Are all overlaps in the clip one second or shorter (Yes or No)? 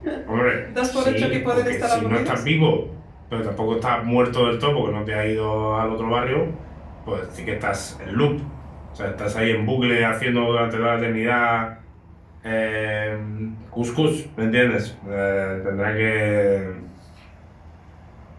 No